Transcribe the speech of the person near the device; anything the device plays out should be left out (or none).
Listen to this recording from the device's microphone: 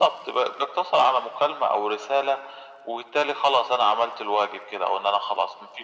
none